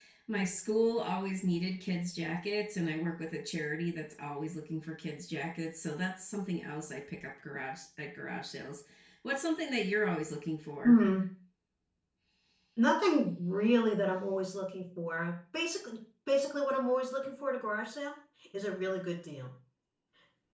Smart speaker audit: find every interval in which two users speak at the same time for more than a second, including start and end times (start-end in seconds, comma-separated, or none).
none